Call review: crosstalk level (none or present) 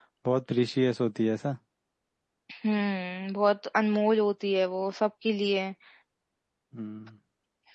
none